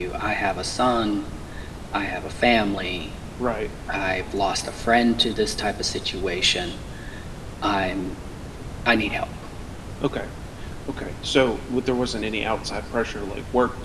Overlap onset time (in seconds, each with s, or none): none